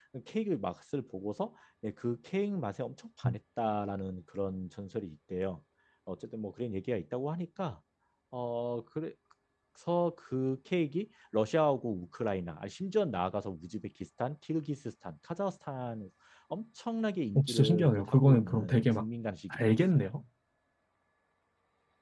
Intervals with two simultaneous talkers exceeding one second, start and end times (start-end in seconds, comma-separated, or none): 17.4-19.0